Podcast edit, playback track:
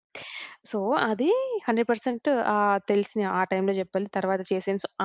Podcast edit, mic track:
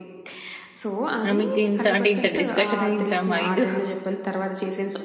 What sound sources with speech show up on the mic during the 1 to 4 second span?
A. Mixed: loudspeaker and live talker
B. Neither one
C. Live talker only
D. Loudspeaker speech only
A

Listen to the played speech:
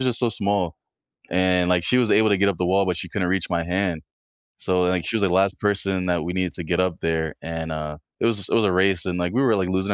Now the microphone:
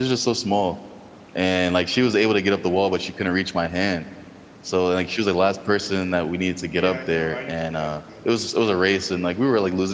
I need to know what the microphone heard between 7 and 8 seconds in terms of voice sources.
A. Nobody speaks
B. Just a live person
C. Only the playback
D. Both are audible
D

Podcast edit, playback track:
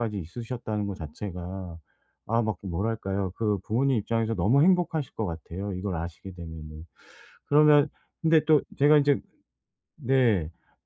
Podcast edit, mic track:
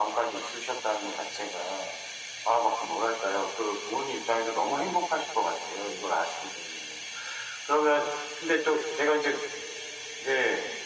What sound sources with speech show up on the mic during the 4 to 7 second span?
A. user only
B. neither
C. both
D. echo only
D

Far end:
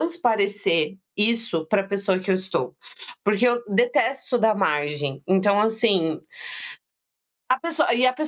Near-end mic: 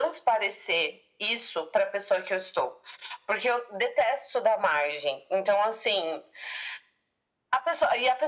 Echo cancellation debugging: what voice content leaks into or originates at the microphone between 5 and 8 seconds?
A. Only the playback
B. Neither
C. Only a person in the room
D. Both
A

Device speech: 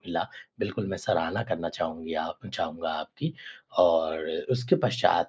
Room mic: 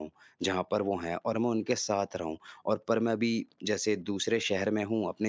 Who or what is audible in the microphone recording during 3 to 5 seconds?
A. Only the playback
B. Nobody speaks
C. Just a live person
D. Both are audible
C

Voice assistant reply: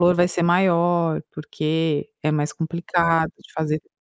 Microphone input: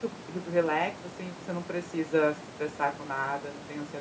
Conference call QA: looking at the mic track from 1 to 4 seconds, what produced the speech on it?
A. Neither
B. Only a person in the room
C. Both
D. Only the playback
B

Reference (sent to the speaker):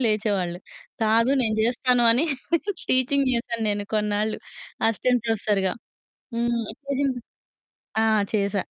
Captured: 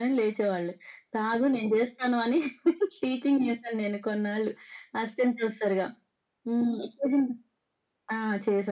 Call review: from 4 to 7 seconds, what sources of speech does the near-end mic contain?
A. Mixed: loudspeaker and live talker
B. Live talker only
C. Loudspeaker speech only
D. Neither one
C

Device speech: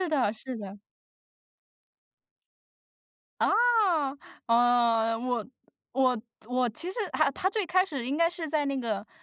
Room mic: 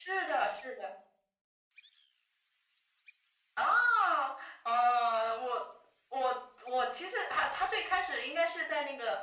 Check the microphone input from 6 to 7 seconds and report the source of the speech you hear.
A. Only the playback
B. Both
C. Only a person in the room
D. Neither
A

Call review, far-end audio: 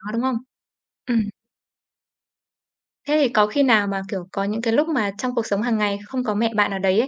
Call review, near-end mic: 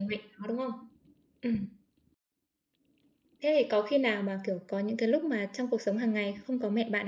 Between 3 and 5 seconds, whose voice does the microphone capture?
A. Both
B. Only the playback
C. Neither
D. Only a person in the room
B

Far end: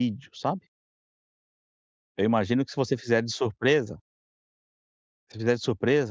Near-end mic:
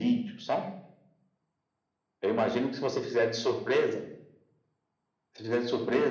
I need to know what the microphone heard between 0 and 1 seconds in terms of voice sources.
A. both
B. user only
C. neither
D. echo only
D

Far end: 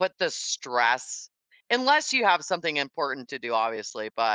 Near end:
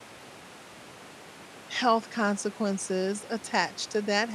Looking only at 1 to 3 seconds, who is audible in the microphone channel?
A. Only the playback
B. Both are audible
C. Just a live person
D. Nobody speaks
C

